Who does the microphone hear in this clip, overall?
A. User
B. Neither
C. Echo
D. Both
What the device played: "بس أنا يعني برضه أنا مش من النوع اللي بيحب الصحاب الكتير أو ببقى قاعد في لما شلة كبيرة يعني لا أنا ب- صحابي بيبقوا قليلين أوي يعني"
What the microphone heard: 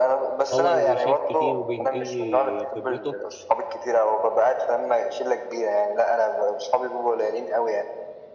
D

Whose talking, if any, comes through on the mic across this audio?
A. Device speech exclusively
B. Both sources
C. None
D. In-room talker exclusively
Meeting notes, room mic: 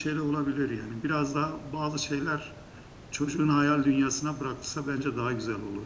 A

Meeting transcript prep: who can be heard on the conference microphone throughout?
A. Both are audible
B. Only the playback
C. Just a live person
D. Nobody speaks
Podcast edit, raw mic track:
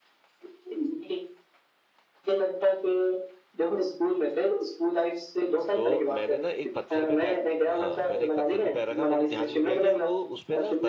A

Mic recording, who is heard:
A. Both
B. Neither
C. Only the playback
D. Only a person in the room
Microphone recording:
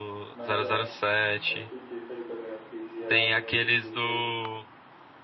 A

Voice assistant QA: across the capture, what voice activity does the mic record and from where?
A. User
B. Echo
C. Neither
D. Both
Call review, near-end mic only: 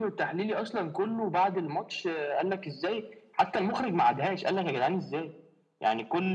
B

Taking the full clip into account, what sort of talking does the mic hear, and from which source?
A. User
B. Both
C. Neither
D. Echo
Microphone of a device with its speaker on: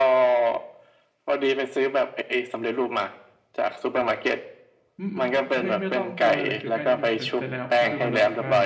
B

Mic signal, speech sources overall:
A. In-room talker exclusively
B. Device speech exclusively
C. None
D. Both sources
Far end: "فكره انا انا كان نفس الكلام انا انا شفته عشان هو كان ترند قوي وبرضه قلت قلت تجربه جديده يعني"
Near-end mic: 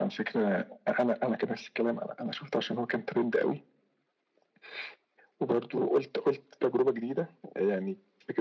B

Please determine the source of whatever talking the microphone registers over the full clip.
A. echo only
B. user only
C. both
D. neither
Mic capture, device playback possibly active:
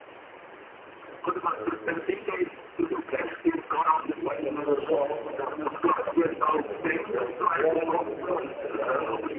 C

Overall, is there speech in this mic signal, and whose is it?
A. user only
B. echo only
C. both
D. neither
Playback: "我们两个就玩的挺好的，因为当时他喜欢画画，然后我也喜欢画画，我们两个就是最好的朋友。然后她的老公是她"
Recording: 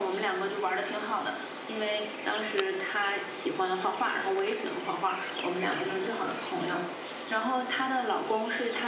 B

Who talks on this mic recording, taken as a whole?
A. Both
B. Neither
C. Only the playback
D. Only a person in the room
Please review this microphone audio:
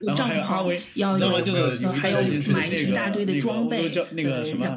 A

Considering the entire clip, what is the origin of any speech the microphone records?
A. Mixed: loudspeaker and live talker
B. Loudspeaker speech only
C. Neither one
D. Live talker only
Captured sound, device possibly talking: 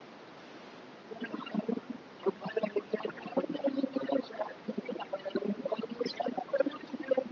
B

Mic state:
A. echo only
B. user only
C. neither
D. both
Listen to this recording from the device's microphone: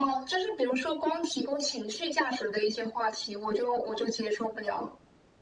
A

